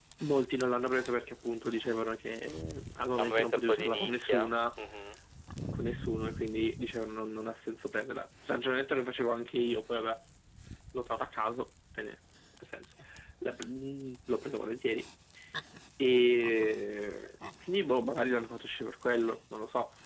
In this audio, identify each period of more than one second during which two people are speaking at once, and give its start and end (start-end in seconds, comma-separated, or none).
3.2-4.5